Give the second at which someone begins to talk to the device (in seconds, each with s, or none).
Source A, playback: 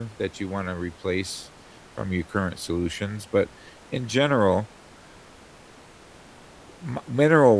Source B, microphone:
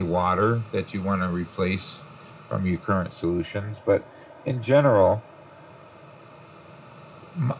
none